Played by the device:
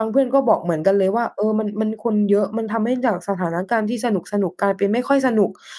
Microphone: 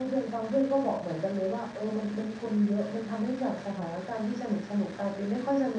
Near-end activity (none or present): none